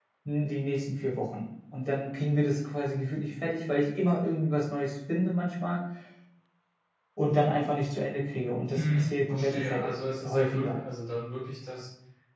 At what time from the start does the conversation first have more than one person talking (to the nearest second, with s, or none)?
9 s